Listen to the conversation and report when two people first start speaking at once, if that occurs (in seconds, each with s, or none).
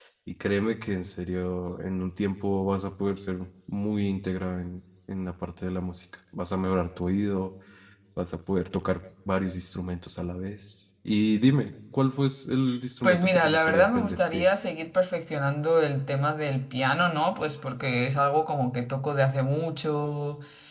13.0 s